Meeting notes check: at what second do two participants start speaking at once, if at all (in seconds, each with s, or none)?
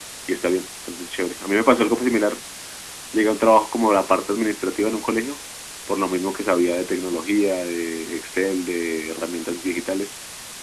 none